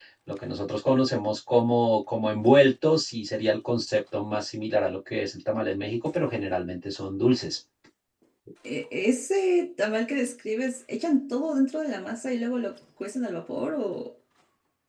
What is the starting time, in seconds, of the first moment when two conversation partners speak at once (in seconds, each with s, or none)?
none